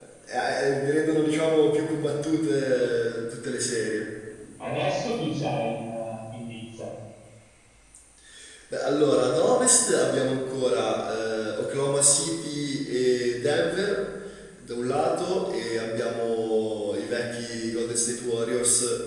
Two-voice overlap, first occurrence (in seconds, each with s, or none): none